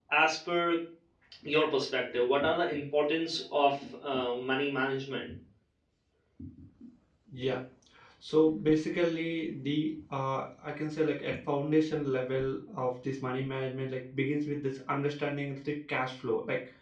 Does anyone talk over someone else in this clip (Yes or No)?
No